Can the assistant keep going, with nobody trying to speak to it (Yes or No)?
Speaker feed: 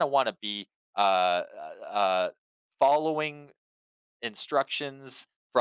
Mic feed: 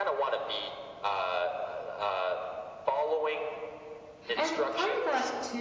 No